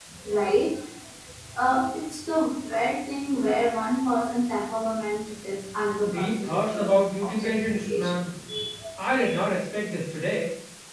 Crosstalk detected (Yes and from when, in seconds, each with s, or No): Yes, from 6.0 s